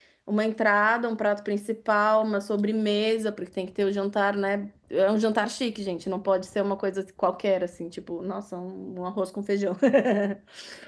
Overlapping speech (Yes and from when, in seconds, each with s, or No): No